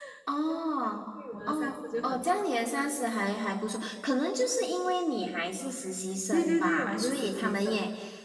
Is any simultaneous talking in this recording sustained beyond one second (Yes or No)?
Yes